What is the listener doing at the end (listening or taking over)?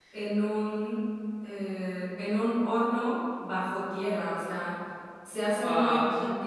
listening